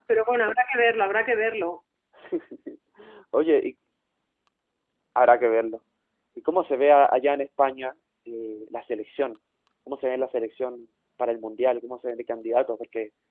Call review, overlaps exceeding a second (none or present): none